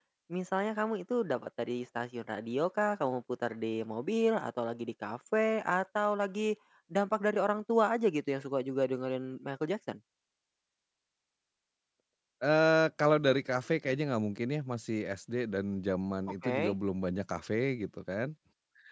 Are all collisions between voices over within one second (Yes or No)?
Yes